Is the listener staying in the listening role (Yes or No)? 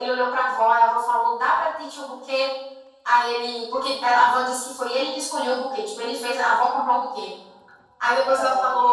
Yes